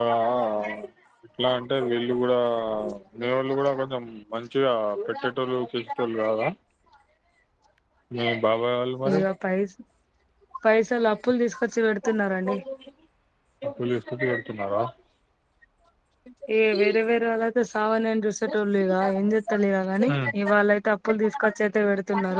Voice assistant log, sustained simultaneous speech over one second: none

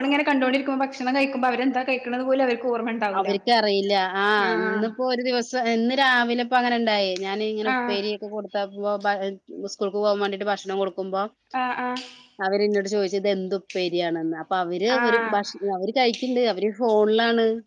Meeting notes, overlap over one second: none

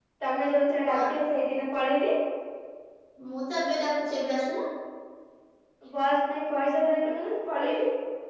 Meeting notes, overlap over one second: none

